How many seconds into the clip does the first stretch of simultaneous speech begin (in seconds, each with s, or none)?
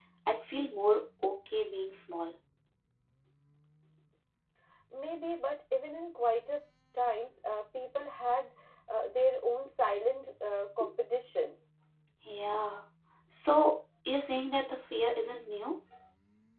none